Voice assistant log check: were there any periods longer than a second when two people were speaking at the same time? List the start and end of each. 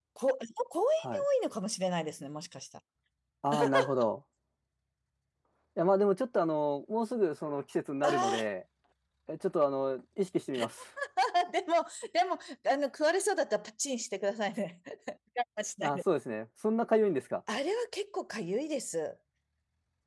none

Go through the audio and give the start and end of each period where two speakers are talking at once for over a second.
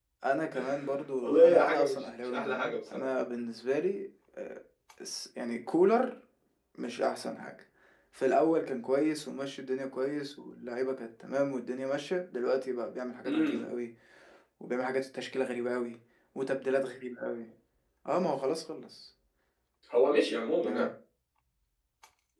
1.2-3.1

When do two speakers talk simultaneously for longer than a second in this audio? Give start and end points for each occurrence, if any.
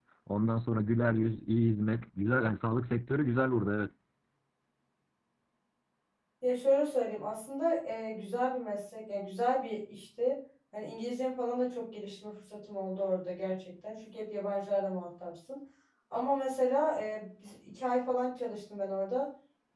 none

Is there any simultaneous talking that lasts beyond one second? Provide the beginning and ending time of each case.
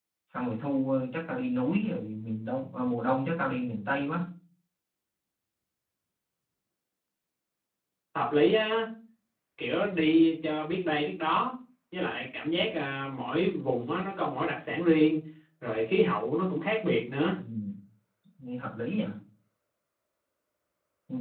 none

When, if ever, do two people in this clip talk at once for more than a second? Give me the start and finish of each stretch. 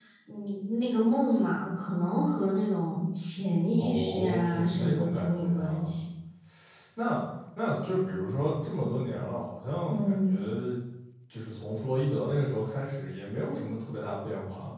3.8-5.9

